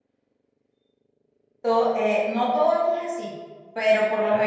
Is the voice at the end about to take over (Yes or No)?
No